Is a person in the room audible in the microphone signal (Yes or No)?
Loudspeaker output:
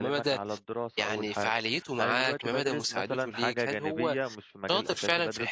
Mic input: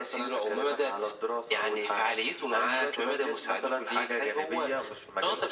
No